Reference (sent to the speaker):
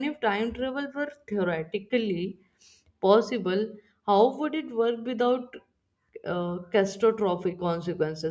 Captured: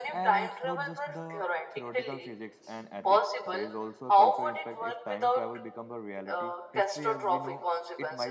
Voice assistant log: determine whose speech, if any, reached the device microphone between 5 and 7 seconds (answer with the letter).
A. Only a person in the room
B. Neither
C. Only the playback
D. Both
D